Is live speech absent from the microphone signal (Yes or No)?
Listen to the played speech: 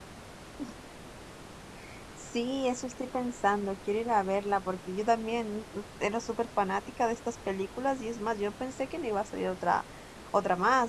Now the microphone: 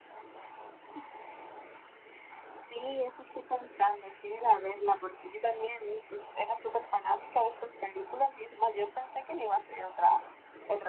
Yes